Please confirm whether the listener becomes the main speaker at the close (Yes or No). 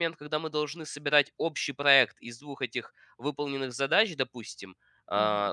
No